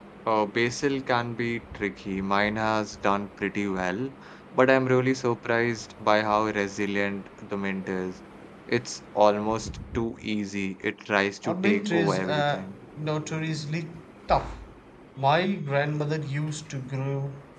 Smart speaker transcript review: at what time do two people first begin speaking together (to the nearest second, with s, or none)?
11 s